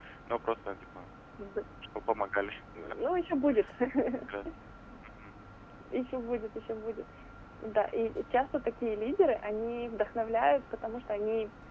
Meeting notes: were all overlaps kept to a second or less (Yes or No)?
Yes